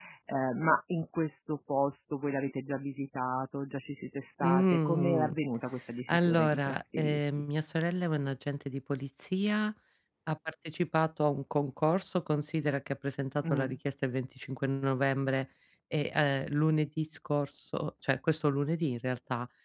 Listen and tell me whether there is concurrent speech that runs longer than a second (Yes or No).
Yes